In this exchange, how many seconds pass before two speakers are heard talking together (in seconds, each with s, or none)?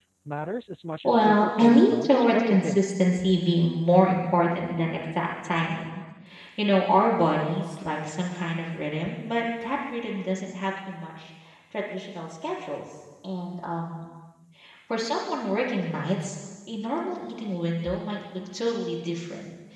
1.0 s